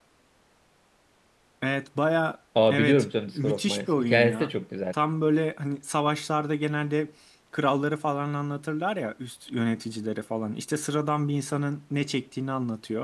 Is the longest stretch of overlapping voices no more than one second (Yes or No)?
No